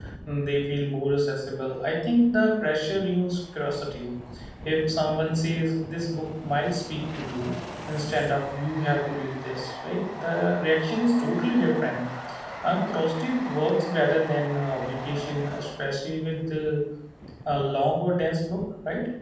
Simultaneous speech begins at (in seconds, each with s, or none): none